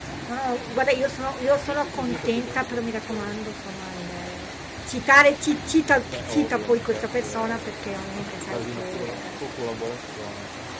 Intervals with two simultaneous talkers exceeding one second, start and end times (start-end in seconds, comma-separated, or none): 1.7-3.4, 6.3-7.6, 8.2-9.4